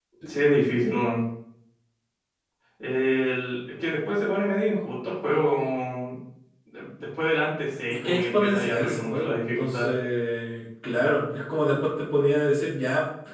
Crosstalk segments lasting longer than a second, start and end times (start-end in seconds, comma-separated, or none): 8.0-9.8